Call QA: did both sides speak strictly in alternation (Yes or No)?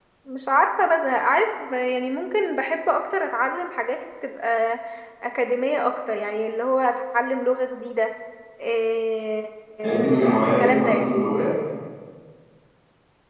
No